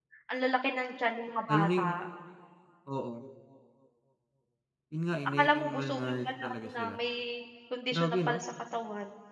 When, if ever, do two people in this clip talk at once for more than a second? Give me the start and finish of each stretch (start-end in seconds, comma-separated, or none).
5.4-7.0